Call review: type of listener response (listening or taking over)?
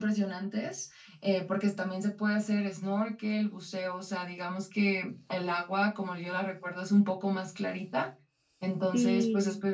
listening